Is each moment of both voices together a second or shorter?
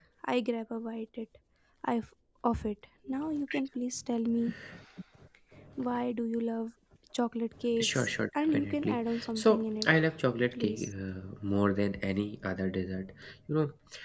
No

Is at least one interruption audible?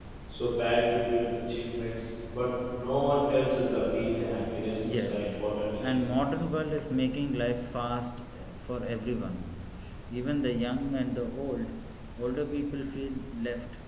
Yes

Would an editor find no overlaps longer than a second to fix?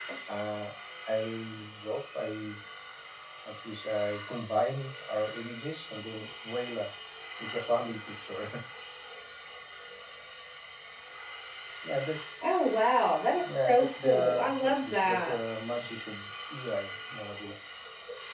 No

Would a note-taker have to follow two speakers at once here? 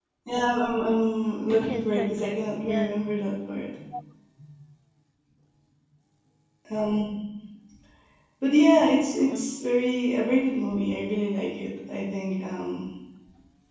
Yes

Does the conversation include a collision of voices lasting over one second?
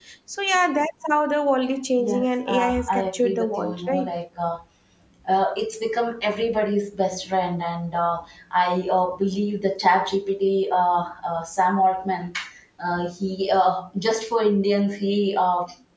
Yes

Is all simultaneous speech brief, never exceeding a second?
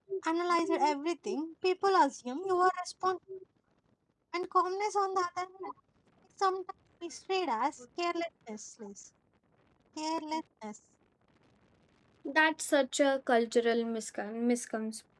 Yes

